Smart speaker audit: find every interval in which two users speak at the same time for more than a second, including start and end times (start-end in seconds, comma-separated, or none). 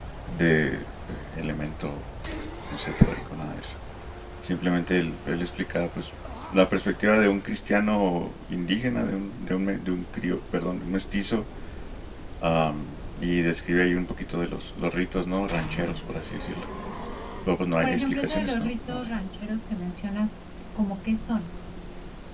17.8-19.1